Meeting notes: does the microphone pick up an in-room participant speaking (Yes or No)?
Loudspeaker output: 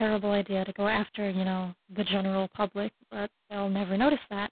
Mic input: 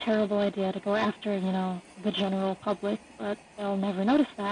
No